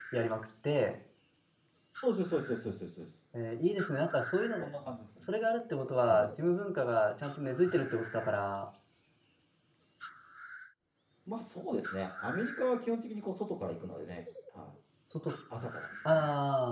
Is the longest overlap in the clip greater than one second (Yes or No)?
No